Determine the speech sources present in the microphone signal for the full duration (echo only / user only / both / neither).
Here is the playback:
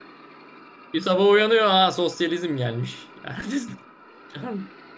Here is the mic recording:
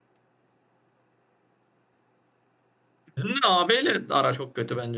user only